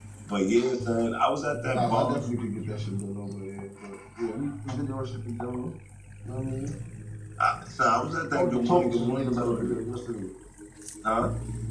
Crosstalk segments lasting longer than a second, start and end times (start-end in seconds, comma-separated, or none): 8.3-9.8